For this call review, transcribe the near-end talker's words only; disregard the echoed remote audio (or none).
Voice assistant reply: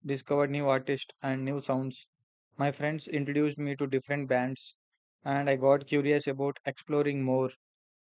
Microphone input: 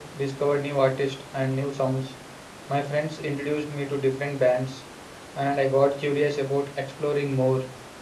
none